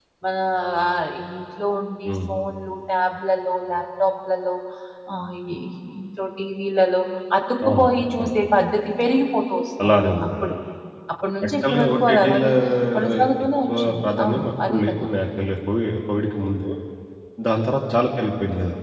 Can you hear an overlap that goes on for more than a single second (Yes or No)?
Yes